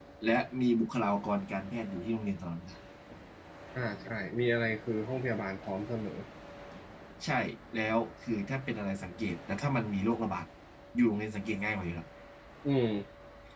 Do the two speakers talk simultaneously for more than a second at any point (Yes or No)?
No